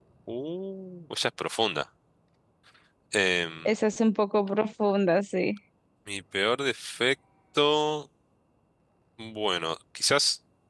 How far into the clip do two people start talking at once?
none

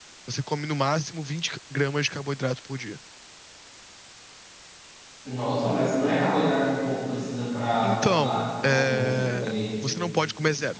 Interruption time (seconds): 7.8 s

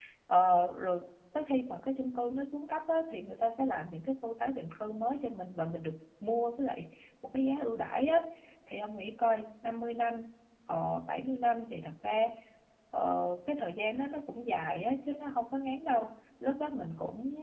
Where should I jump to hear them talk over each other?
none

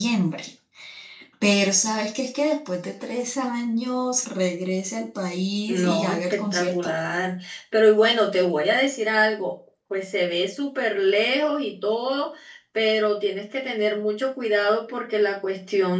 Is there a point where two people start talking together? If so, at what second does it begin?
5.7 s

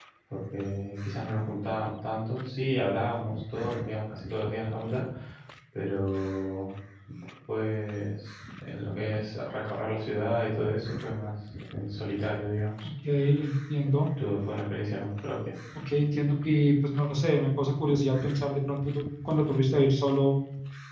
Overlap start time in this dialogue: none

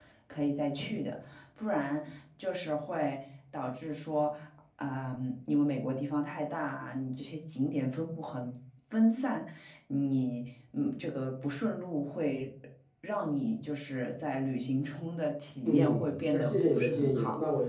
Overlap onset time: 15.6 s

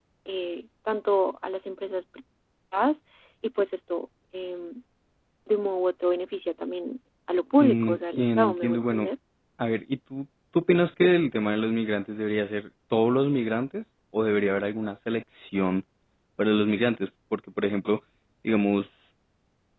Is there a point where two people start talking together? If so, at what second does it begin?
7.6 s

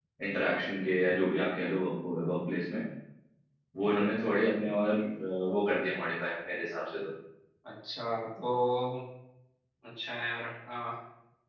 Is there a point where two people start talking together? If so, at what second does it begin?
none

